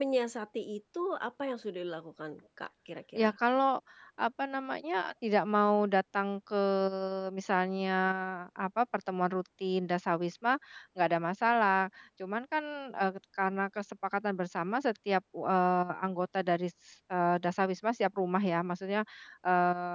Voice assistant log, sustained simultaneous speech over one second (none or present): none